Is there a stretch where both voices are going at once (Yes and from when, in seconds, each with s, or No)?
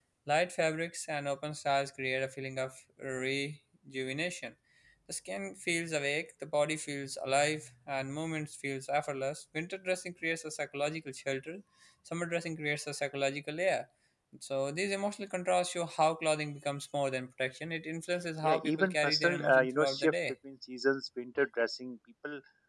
Yes, from 18.4 s